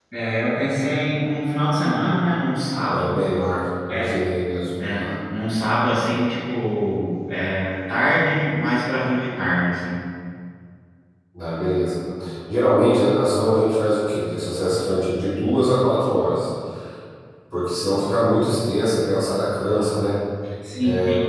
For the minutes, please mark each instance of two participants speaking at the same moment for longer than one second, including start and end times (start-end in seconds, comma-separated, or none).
none